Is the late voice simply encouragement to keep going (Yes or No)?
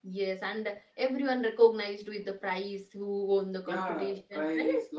No